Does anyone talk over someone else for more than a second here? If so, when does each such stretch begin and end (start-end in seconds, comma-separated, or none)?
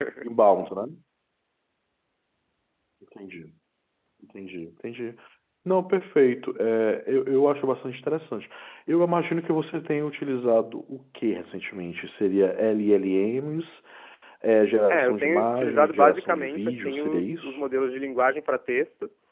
14.9-17.6